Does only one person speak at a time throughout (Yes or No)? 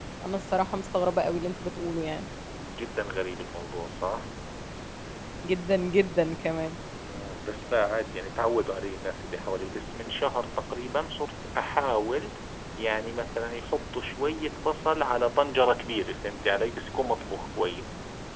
Yes